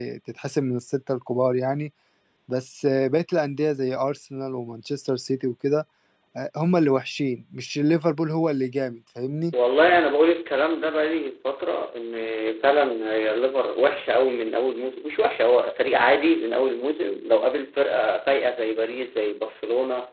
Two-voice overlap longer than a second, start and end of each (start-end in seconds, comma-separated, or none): none